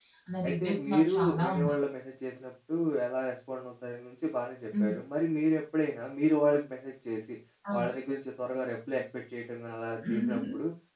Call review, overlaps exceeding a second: present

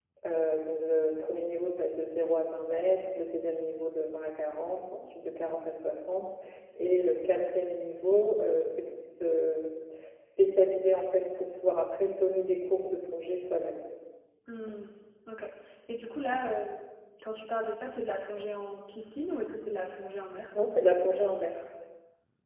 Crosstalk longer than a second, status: none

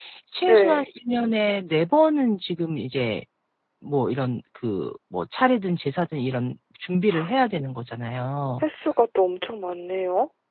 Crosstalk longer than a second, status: none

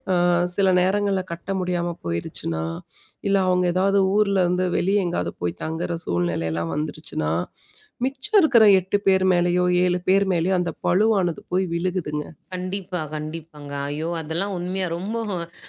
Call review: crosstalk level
none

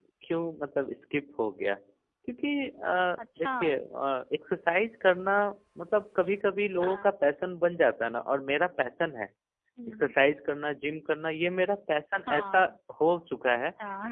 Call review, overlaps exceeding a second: none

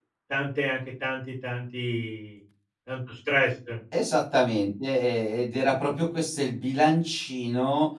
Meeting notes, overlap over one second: none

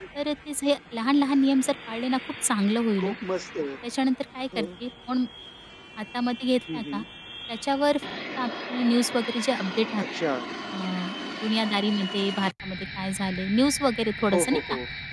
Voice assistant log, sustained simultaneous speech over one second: none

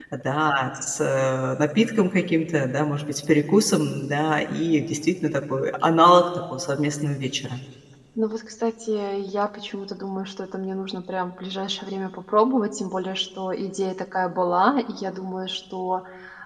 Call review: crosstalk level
none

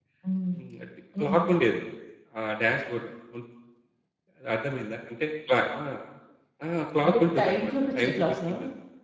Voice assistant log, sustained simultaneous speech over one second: present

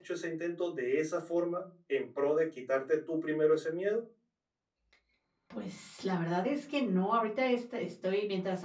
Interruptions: none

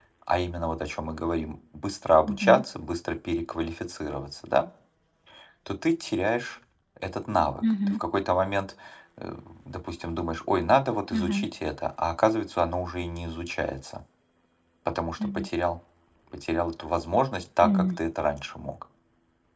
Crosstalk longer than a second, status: none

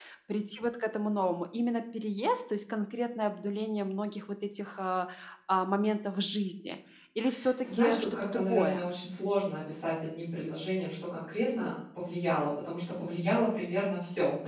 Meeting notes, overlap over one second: present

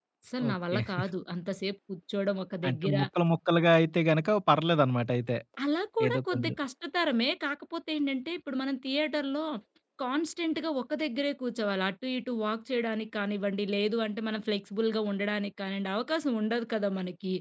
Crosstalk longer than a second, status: none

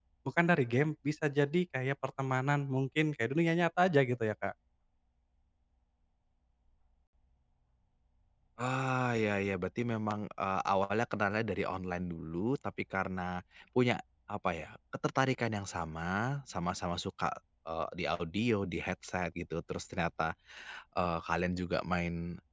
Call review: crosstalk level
none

